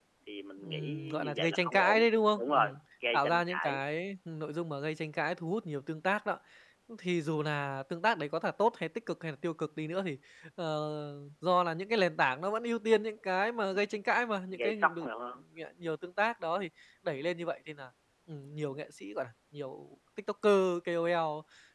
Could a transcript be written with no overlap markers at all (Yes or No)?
No